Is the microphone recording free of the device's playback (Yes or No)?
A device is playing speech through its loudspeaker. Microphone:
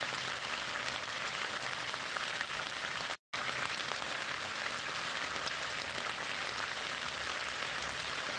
Yes